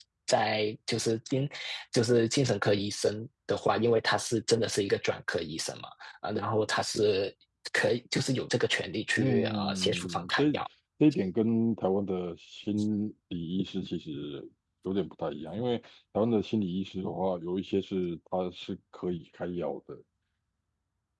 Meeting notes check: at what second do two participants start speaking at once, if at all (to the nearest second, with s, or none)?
9 s